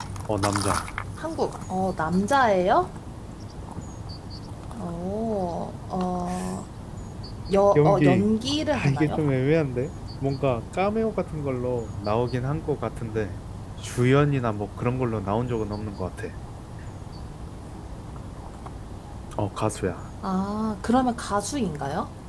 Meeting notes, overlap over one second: none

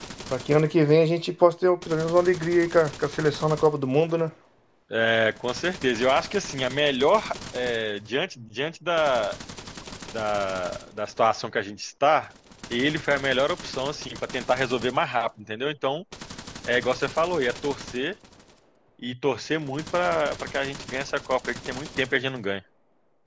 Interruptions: none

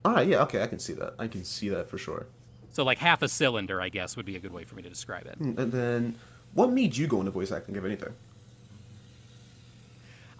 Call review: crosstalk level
none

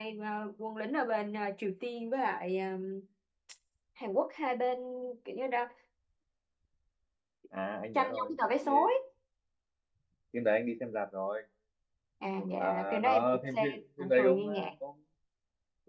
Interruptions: present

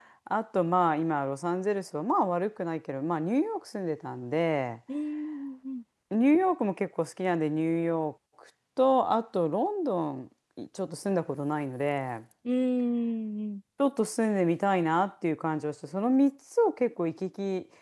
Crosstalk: none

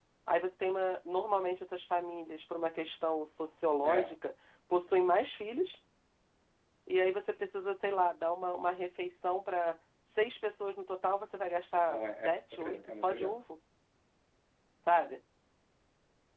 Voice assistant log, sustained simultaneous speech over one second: present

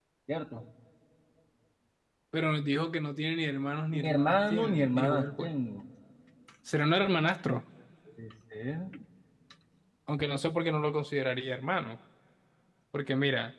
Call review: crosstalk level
present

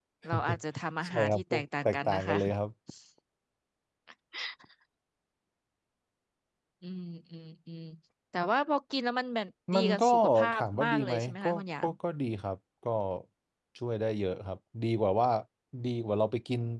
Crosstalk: present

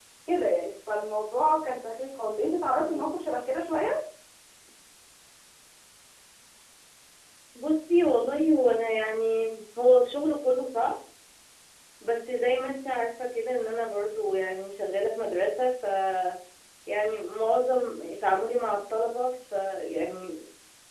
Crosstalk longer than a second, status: none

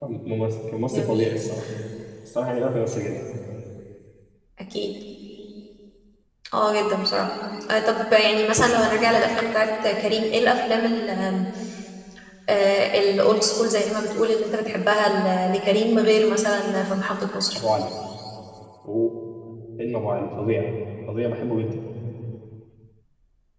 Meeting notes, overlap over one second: none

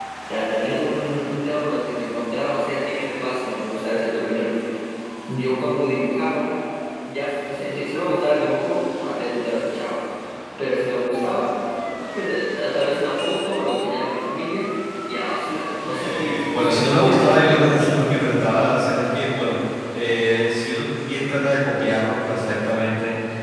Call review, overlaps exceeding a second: present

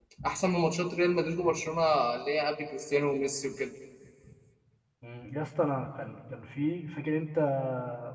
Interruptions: none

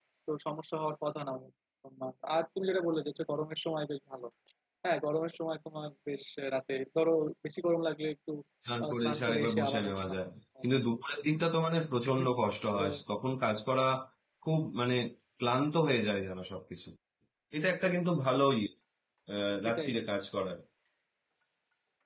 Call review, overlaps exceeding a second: present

